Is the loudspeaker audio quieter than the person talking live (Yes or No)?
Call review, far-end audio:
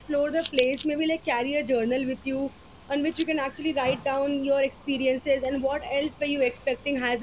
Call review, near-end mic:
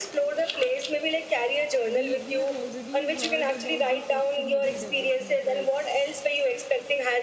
No